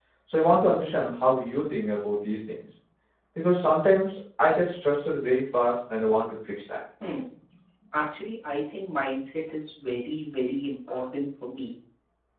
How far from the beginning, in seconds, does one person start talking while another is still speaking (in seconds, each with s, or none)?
none